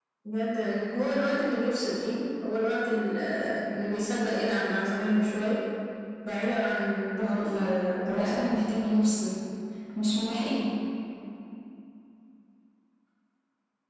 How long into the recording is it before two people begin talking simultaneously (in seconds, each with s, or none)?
7.2 s